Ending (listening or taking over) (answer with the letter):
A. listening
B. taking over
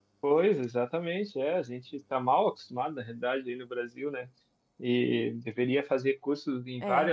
A